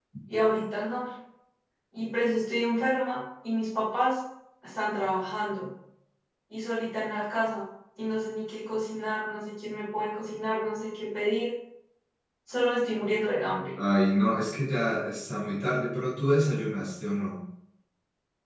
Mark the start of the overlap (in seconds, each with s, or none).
none